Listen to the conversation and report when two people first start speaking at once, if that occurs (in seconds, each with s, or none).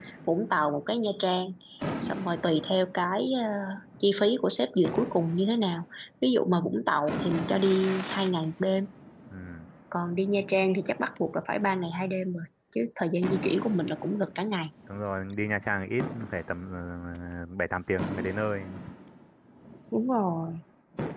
none